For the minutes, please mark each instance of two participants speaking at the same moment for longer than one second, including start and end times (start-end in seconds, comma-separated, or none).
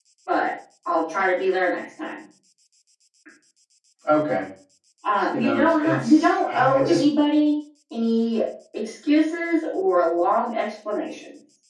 5.3-7.0